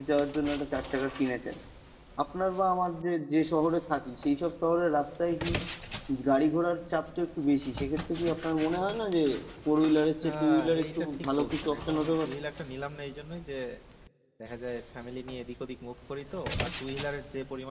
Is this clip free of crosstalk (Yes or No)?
No